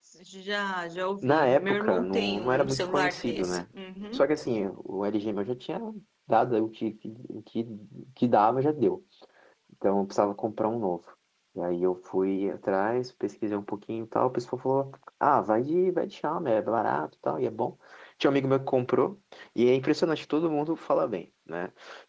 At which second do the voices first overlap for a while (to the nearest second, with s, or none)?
1 s